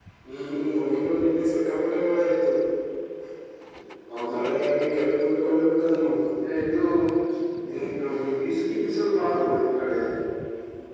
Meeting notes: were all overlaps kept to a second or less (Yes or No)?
Yes